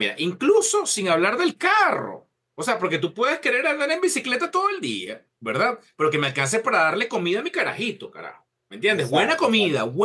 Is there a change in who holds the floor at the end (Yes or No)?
No